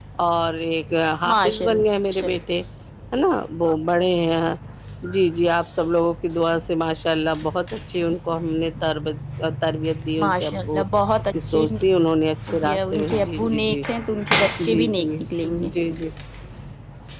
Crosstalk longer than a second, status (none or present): present